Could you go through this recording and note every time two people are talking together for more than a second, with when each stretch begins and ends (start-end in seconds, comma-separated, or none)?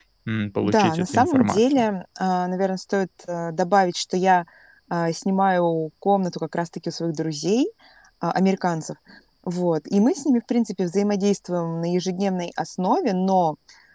0.6-1.9